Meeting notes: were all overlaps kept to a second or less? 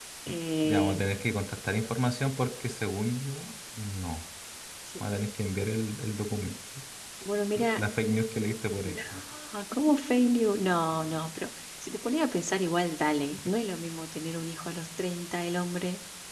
Yes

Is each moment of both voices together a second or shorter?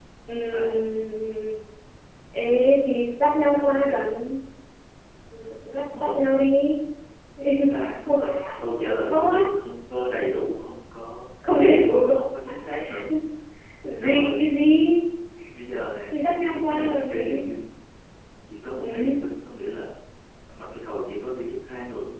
No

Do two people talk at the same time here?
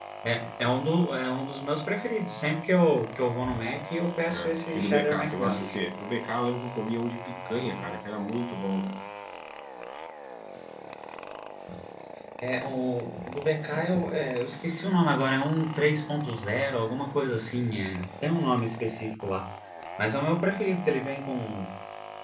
Yes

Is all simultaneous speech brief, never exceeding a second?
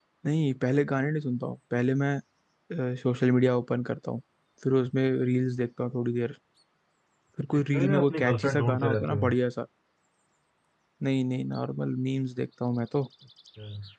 No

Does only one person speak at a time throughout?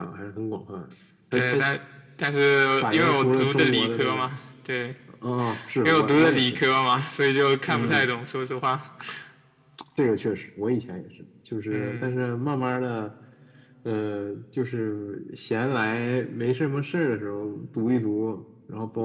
No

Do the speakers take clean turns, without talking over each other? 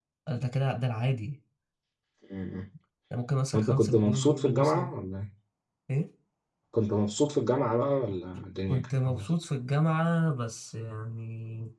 No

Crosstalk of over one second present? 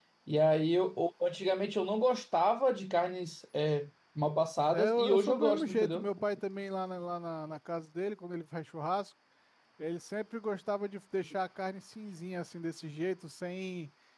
Yes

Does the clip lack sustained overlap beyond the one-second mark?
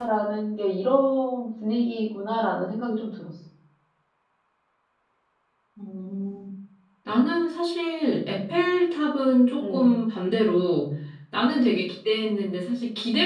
Yes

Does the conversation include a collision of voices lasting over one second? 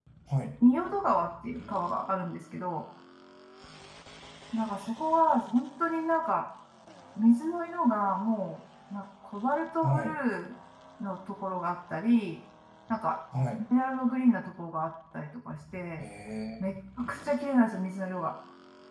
No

